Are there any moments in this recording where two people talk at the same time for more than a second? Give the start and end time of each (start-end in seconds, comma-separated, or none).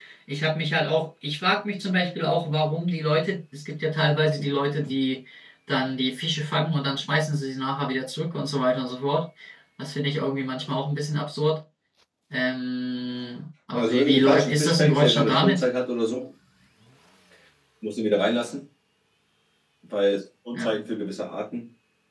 13.8-15.6